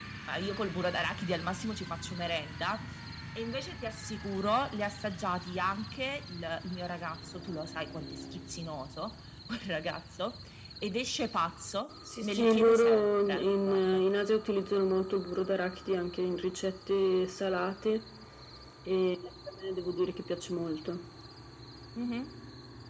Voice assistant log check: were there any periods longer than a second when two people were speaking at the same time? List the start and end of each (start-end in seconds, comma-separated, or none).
12.2-14.0